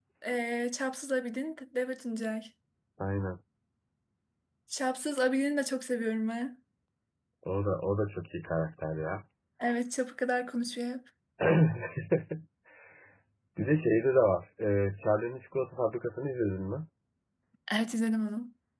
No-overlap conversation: Yes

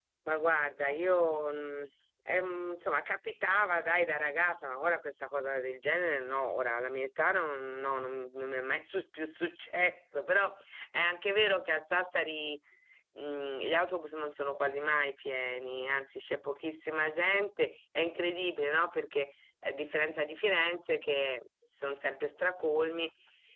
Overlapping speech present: No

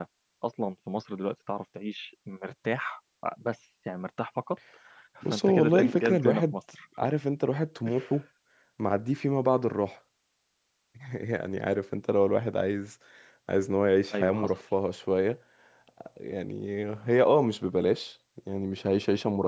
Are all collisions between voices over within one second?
No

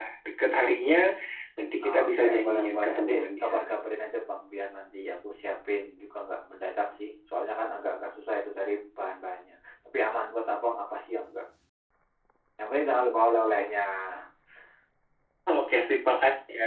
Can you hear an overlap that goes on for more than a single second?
Yes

